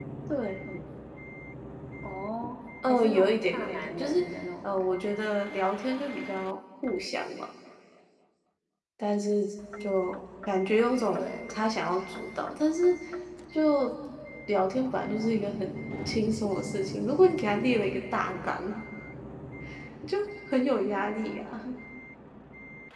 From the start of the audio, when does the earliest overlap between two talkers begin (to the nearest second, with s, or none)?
3 s